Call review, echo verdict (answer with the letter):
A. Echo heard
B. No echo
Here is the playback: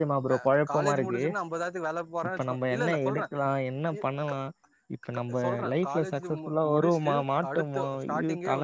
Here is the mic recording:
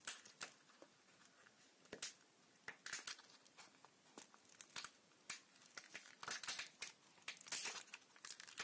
B